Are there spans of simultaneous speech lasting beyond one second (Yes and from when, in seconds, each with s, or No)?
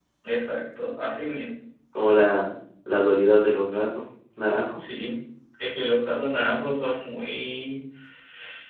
No